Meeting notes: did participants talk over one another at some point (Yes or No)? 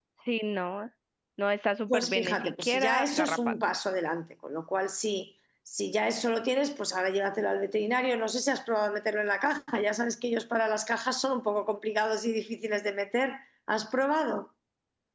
Yes